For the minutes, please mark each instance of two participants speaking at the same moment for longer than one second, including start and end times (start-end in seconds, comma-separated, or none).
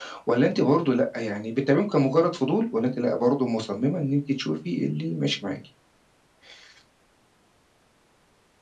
none